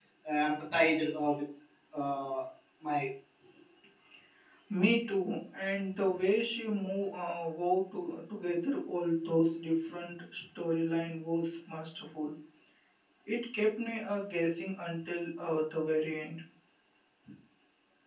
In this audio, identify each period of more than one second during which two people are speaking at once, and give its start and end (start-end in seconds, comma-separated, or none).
none